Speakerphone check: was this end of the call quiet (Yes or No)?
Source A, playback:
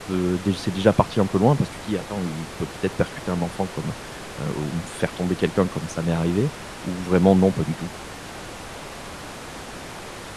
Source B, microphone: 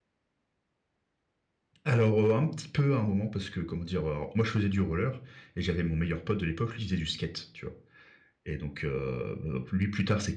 No